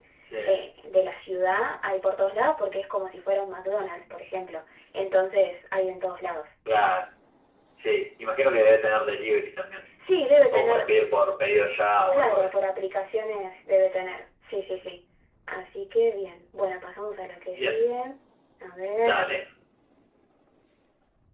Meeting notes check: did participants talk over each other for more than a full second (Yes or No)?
No